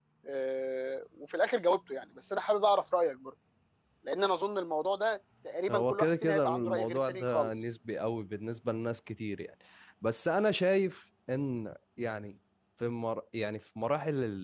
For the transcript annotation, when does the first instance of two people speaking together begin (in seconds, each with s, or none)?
5.7 s